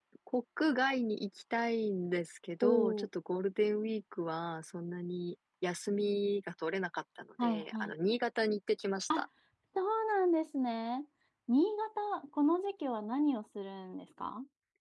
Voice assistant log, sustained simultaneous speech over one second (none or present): none